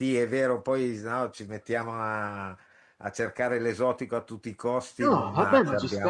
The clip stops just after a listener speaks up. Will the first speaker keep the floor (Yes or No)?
No